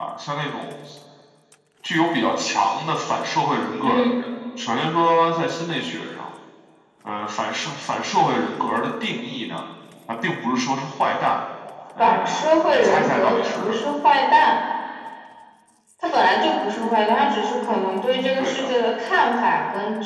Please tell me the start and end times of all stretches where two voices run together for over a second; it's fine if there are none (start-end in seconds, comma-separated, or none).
12.0-13.8